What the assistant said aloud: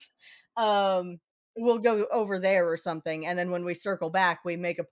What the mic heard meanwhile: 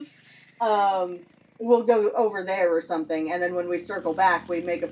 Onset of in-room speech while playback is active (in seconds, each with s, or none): none